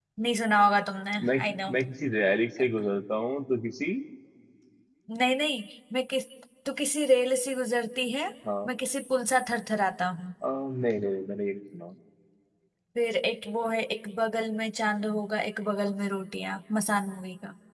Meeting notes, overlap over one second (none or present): none